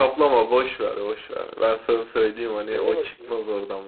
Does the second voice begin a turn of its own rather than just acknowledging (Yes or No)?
No